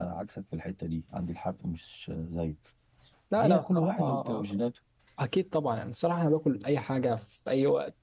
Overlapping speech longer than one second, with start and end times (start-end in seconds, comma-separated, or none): 3.3-4.6